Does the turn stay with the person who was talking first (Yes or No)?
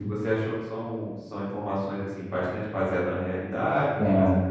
No